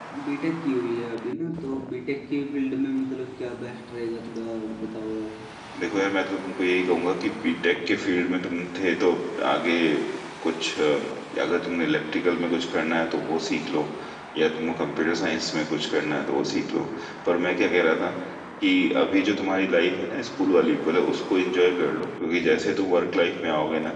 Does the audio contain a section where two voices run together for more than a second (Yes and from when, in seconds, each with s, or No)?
No